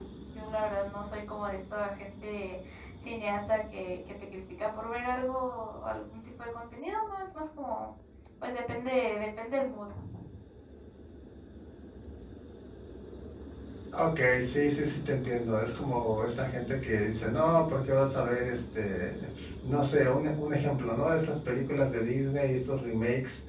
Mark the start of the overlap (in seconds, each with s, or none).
none